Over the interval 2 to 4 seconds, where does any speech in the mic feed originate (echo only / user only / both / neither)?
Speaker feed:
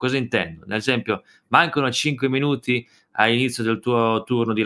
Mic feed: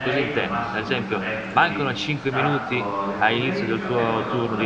both